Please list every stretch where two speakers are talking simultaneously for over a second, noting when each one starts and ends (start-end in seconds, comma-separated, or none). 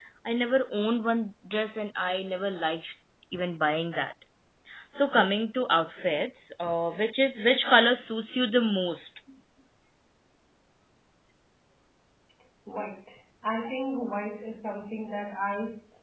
none